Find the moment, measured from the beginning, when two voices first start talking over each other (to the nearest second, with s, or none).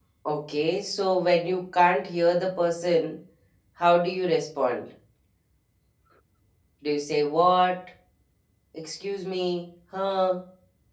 none